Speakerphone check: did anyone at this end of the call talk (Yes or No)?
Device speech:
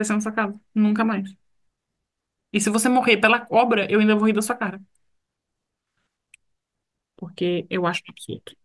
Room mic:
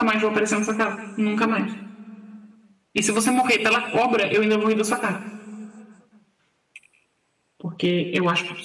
No